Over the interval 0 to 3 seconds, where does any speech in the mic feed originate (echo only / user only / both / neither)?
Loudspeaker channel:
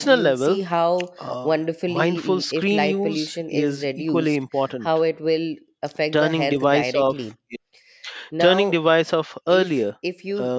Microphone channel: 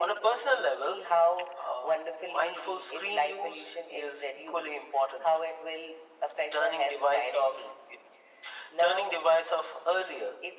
echo only